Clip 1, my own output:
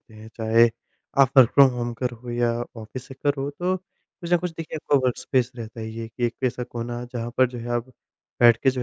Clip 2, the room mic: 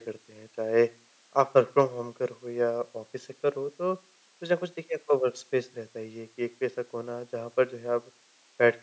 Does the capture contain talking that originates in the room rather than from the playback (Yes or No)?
No